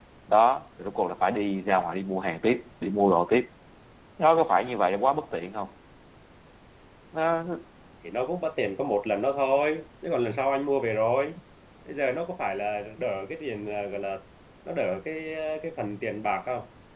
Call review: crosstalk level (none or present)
none